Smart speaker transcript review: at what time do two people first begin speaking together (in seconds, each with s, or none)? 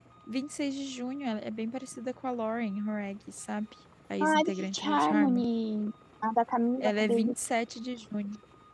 4.2 s